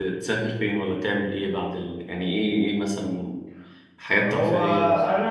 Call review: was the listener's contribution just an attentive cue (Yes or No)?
No